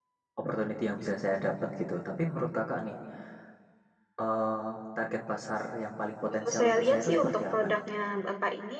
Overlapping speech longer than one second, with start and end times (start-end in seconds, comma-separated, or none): 6.3-7.8